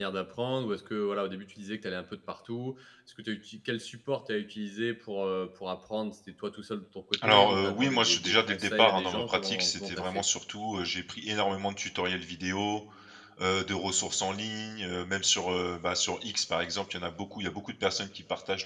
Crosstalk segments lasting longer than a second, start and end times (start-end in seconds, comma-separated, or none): 7.3-10.2